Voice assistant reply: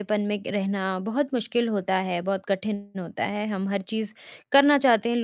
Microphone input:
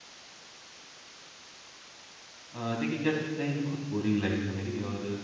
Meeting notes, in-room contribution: present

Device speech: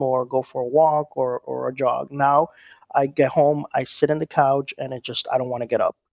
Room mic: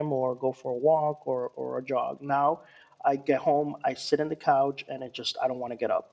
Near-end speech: none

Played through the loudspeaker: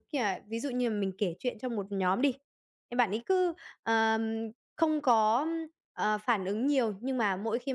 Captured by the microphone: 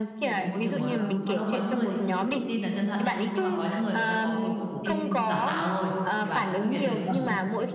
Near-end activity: present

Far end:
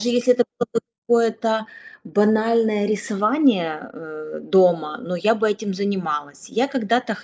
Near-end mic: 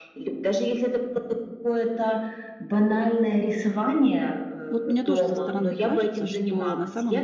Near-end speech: present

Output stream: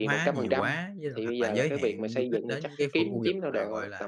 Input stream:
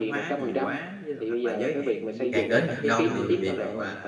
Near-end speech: present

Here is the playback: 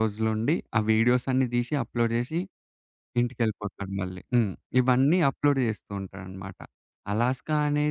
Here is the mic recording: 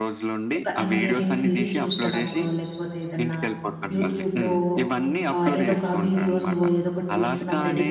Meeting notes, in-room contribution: present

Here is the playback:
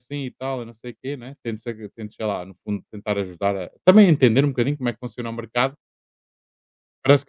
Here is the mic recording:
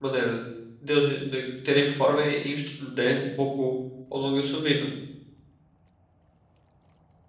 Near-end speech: present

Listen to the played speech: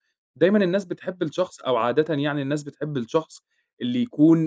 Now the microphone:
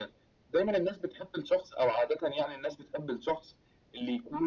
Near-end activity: none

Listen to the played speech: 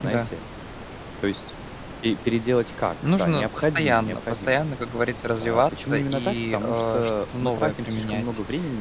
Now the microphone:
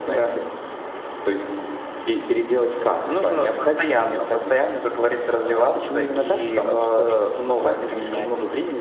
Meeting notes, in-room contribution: none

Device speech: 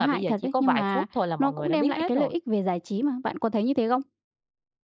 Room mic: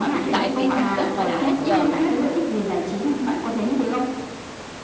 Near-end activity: present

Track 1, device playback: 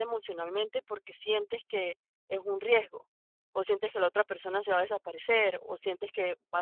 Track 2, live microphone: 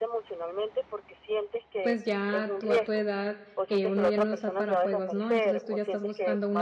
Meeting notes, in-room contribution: present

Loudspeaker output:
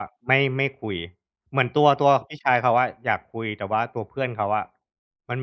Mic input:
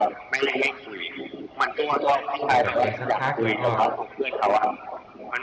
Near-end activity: present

